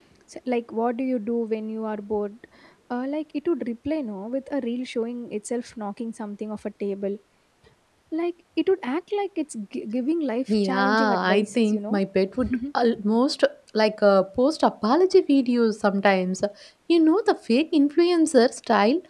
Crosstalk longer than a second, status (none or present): present